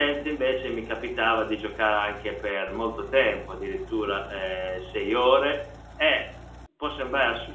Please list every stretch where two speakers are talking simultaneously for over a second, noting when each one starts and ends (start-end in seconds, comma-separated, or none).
none